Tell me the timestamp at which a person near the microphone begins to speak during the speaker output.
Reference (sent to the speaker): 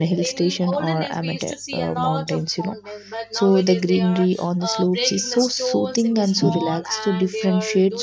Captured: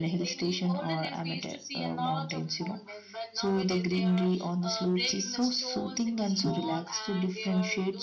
none

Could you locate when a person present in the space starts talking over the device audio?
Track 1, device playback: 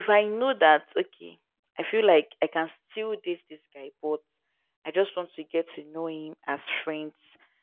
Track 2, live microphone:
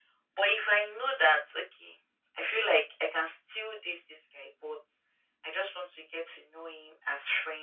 none

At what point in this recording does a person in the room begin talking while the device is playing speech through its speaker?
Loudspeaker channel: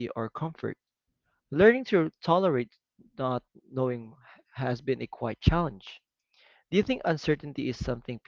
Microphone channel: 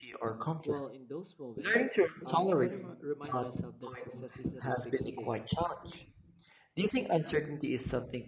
0.6 s

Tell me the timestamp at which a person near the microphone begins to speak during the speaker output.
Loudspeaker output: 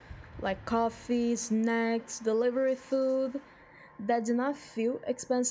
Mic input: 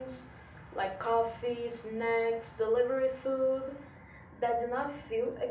none

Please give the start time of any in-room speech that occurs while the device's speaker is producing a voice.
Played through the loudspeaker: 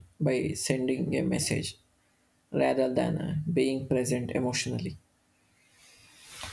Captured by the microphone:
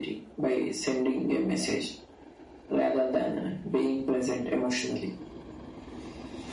none

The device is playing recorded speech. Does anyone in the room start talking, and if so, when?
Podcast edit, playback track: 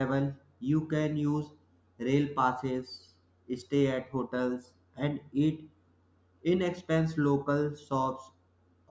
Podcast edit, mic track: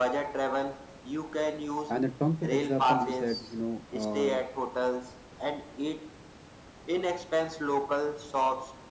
1.9 s

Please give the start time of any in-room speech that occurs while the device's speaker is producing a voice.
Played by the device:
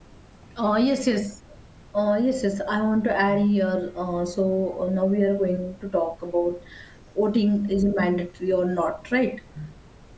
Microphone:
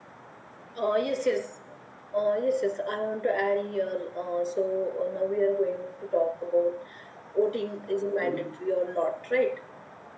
8.2 s

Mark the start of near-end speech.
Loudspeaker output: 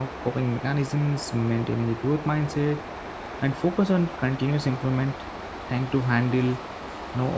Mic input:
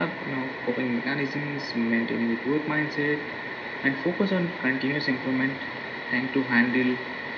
none

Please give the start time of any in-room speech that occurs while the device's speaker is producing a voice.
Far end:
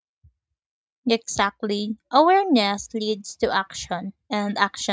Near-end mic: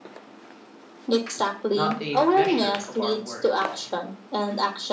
1.7 s

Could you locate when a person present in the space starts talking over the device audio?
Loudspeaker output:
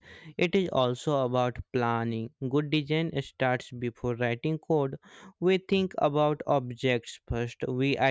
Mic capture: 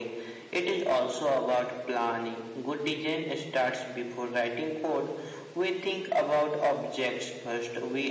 none

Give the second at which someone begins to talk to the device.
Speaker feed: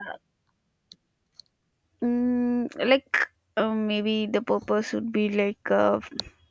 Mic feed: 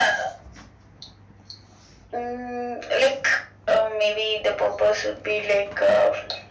none

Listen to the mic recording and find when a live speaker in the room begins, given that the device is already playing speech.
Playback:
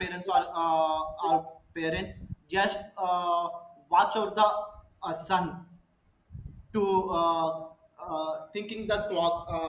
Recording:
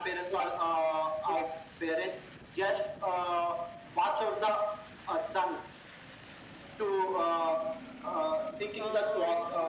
8.8 s

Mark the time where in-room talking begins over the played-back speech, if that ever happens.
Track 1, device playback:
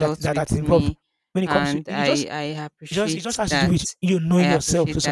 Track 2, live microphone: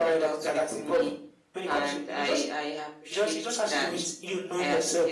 none

